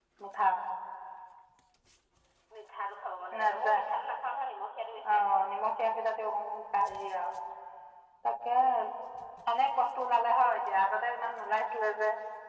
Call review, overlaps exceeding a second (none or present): none